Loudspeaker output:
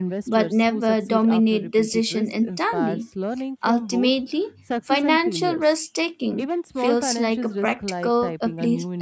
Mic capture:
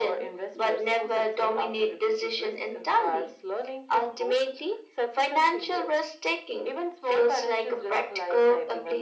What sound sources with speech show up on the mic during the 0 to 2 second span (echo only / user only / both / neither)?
echo only